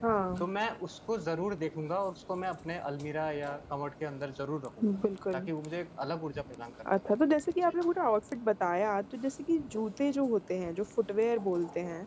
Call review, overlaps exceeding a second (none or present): none